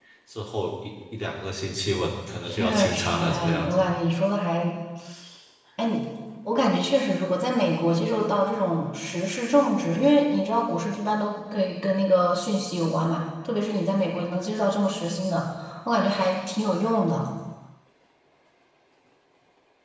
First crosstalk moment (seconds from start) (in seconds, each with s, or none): 2.4 s